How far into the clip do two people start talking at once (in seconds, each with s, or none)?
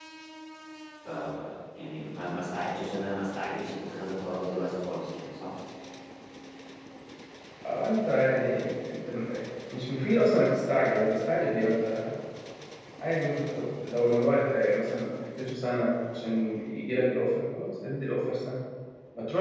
none